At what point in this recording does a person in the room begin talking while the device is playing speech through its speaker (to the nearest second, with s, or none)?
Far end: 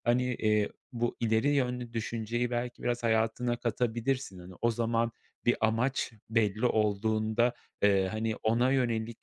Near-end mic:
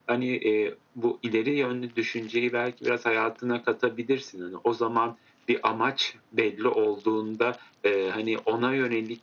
none